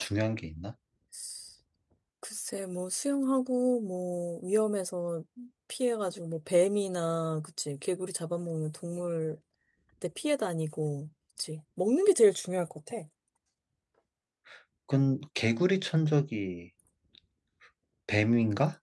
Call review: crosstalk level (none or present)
none